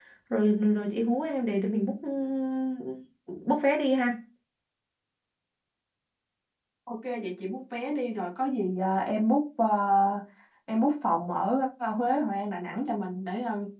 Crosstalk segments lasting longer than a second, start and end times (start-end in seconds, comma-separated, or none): none